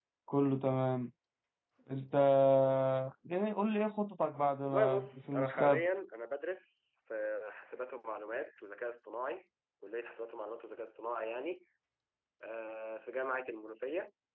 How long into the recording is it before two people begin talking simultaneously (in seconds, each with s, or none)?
4.7 s